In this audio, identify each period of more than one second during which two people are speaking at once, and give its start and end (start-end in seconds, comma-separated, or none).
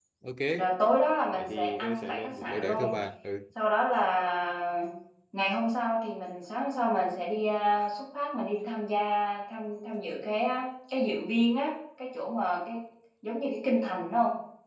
1.3-2.9